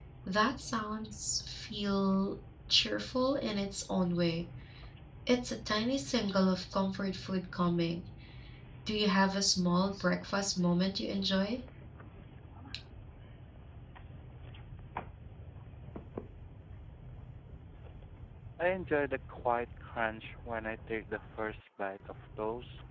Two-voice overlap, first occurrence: none

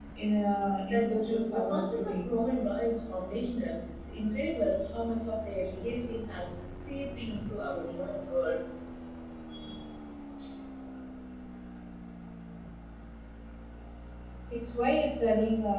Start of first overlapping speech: 0.9 s

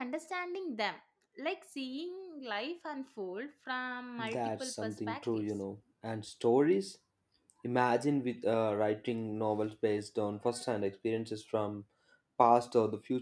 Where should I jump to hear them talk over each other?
4.2 s

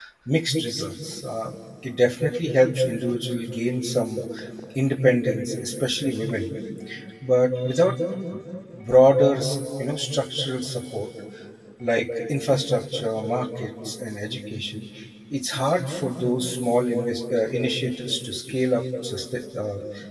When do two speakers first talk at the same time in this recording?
none

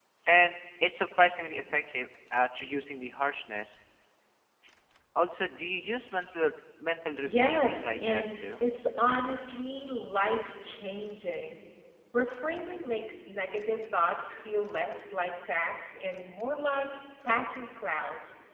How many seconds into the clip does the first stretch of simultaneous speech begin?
7.2 s

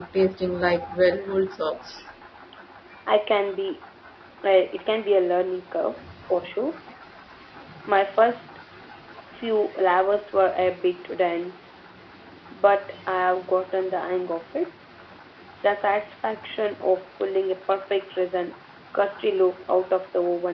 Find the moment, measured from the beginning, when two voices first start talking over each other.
none

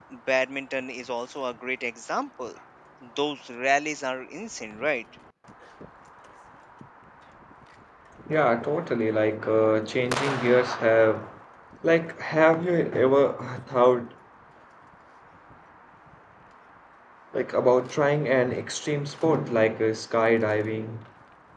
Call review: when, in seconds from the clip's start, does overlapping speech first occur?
none

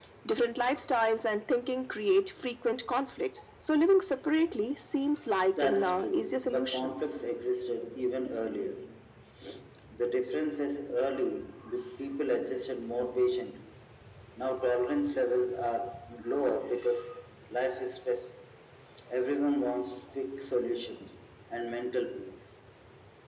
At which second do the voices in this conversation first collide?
5.5 s

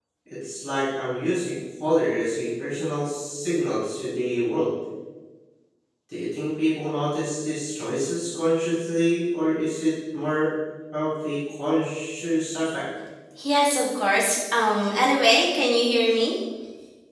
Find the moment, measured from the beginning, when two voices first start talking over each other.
none

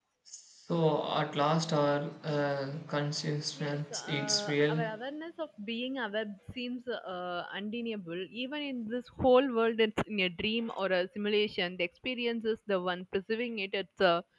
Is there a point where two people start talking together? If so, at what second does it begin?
3.6 s

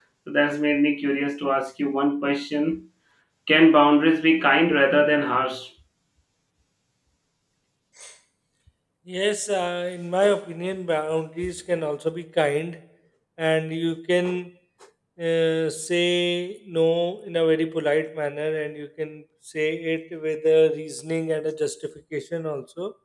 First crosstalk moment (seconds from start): none

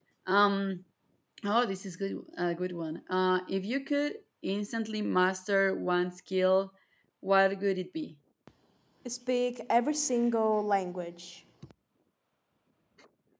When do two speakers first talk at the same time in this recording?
none

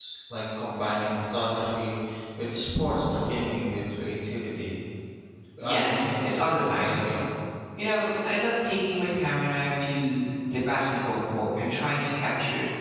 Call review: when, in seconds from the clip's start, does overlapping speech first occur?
5.6 s

